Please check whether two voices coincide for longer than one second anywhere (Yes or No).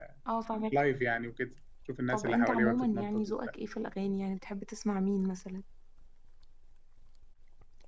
Yes